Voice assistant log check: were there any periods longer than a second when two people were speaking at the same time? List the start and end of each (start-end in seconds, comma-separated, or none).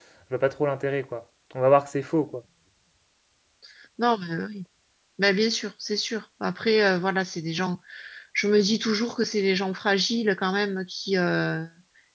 none